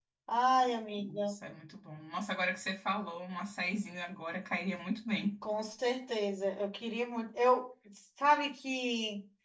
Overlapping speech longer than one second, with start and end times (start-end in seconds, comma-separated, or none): none